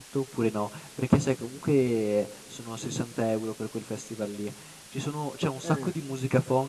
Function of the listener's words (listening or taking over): listening